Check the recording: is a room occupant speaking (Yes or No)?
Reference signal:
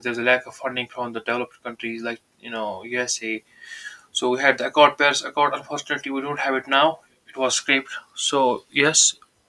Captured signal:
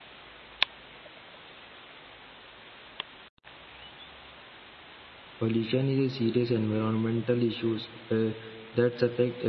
Yes